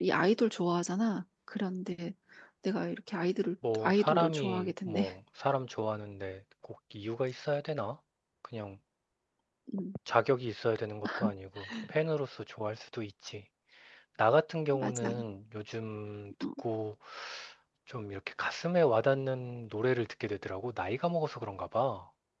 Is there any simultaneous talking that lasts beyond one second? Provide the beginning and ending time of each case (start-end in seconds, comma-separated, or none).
3.7-5.0